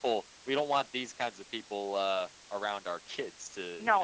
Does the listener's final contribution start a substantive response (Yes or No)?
Yes